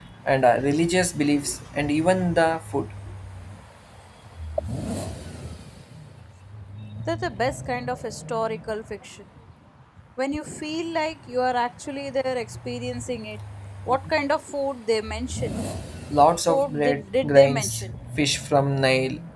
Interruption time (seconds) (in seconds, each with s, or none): 16.4 s